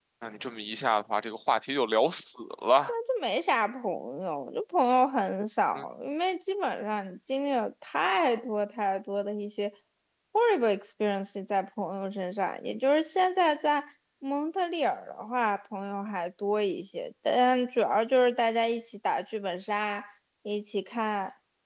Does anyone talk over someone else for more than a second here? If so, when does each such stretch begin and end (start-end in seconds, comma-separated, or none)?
none